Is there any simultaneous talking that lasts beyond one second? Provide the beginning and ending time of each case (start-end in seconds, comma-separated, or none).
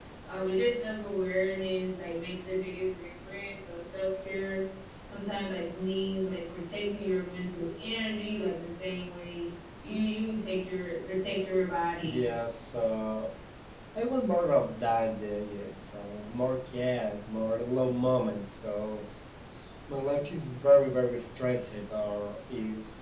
none